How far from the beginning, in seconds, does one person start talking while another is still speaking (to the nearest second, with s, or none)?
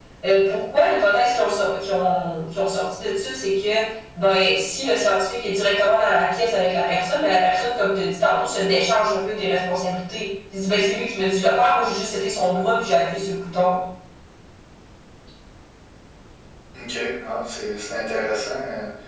none